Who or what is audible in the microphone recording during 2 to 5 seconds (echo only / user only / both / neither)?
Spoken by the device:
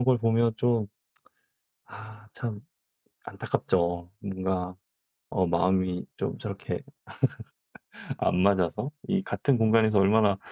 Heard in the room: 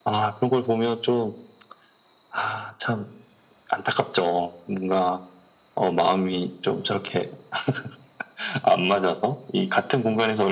echo only